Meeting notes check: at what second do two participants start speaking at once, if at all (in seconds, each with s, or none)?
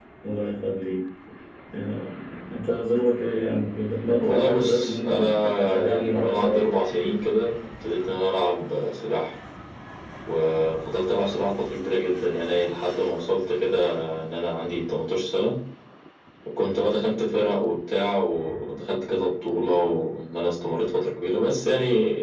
4.2 s